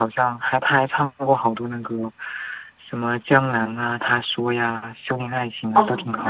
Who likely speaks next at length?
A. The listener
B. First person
A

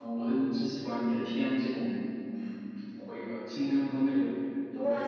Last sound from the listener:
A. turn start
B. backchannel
A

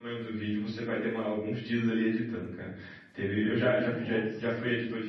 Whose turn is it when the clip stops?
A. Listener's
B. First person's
B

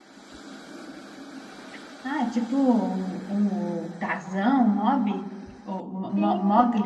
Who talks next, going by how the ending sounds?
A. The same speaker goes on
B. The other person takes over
B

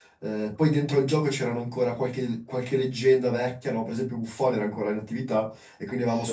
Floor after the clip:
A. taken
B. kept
B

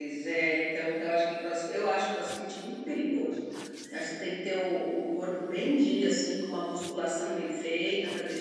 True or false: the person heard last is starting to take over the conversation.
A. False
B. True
A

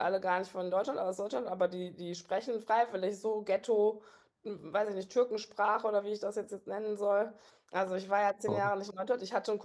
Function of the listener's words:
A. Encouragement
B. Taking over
A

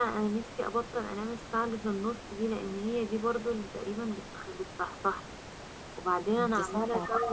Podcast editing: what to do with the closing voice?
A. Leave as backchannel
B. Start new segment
A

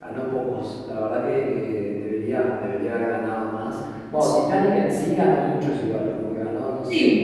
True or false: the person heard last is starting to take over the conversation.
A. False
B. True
B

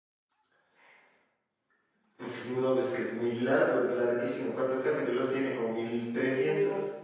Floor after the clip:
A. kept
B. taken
B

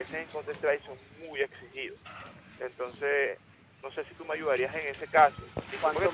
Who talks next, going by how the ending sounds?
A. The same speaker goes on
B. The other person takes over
A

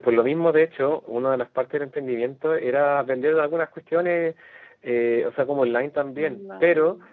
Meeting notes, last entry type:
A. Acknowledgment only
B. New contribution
A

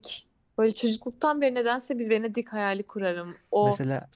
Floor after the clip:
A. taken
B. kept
B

